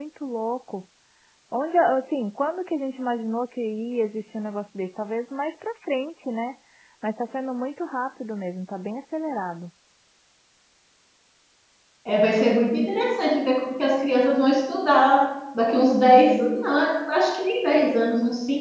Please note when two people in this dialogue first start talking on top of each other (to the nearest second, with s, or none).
none